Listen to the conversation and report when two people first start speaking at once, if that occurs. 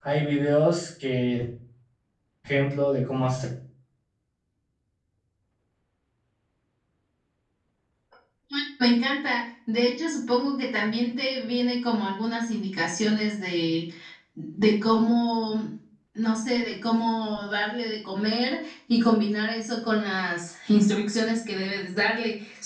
none

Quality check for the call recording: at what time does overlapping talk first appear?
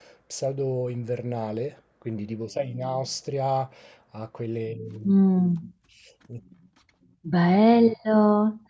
none

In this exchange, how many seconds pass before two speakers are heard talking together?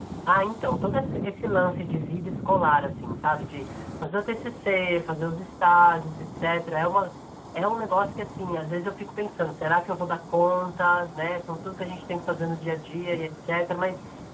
none

